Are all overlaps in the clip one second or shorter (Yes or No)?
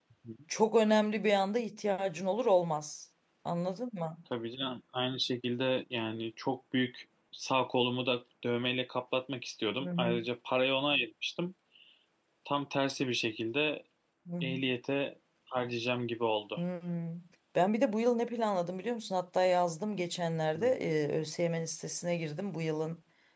Yes